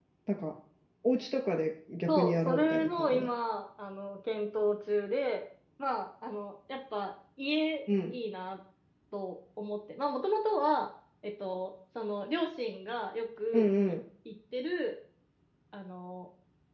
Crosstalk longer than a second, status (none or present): present